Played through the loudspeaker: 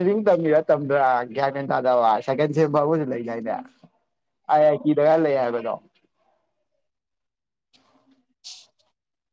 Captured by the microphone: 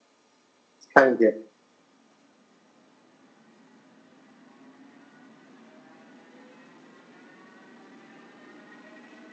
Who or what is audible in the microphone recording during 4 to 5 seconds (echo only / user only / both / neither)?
neither